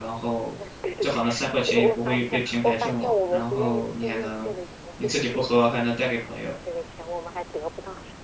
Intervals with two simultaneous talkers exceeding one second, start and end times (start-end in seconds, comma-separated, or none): 1.7-4.5, 5.0-6.5